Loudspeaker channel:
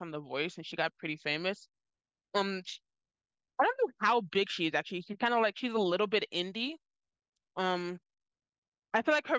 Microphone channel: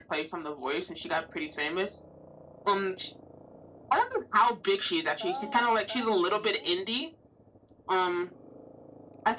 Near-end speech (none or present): present